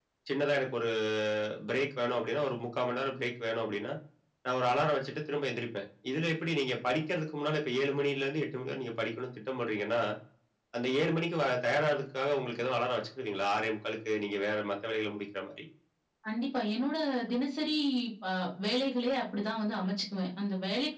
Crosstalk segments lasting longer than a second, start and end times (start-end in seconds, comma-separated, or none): none